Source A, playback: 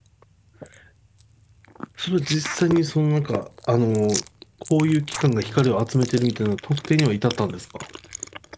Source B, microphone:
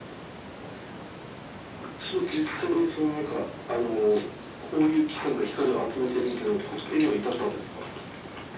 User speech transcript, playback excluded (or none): none